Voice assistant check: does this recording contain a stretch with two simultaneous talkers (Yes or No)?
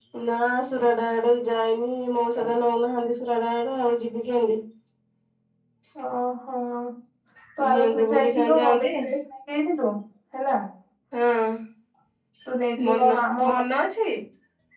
Yes